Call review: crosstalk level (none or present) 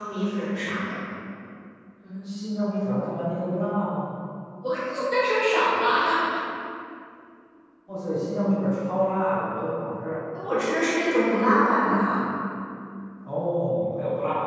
none